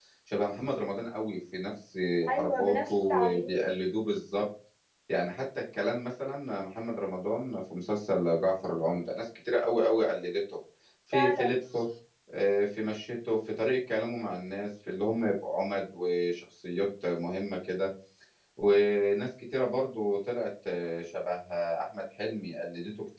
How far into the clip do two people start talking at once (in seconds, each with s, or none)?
2.4 s